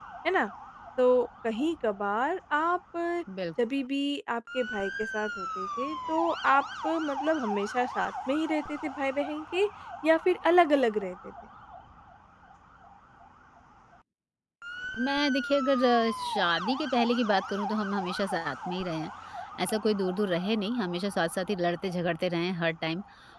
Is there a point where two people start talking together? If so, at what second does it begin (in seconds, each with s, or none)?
none